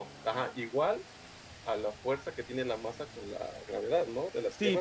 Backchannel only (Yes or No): No